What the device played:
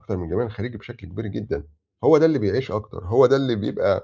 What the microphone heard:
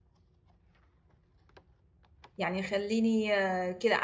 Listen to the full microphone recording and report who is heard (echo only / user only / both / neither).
user only